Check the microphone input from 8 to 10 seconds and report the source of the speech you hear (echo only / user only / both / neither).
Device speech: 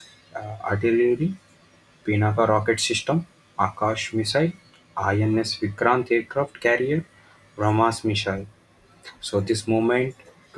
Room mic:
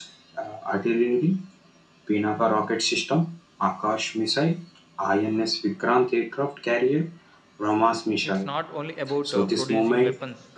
both